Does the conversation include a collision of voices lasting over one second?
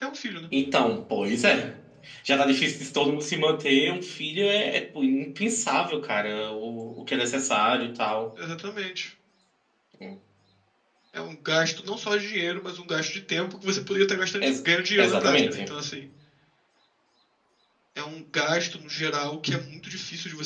Yes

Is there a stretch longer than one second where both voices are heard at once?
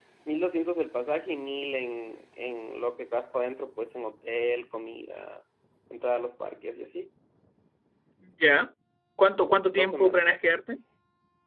No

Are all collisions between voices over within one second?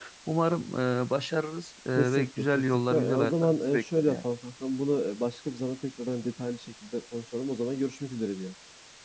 No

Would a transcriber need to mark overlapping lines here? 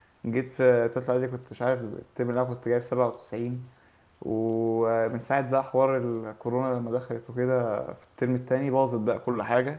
No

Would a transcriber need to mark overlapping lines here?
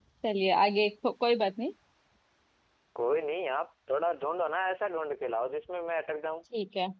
No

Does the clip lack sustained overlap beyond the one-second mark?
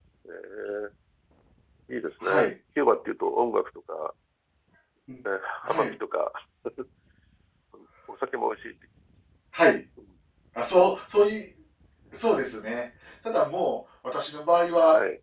Yes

